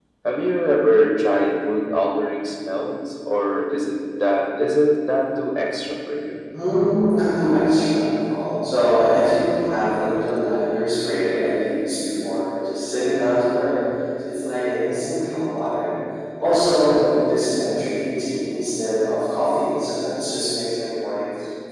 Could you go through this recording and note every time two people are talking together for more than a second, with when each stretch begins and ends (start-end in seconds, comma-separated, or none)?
none